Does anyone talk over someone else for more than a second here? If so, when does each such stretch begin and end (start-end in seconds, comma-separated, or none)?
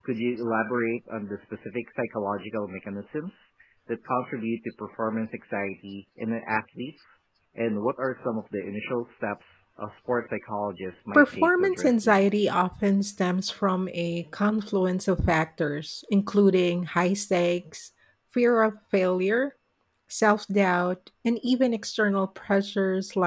11.1-12.5